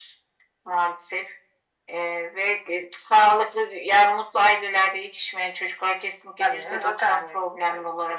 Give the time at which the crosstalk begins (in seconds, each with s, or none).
6.4 s